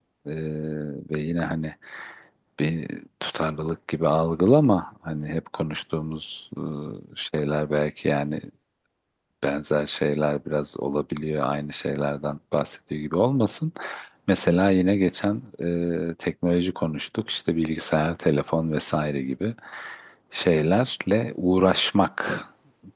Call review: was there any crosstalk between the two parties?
No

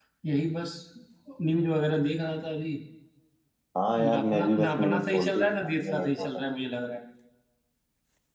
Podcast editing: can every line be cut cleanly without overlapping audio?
No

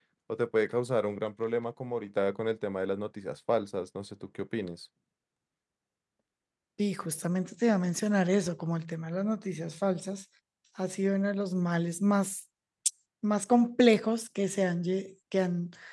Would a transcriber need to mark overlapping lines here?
No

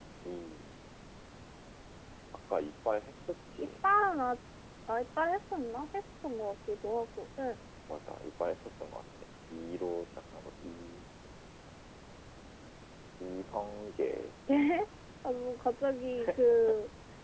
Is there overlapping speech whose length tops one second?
No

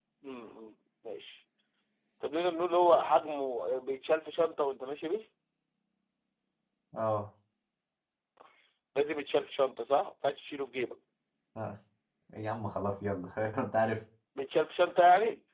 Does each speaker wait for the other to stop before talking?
Yes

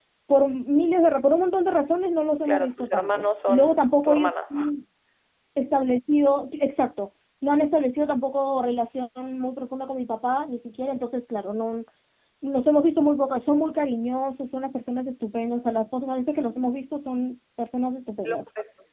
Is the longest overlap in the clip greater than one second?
Yes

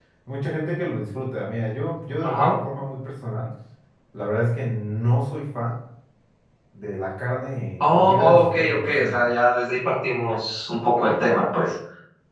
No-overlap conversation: No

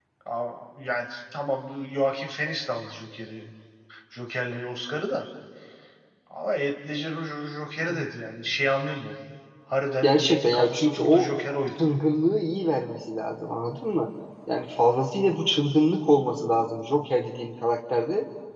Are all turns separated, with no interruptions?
No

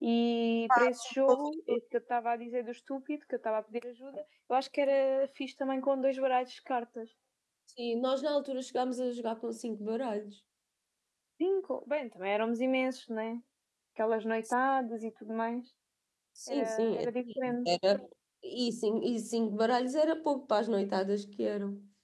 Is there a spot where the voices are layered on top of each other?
Yes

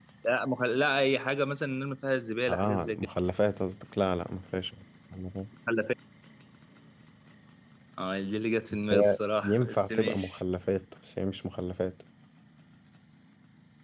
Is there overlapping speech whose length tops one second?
Yes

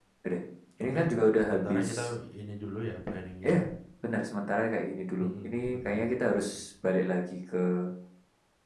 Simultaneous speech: Yes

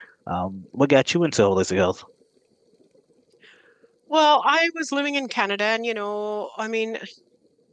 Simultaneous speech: No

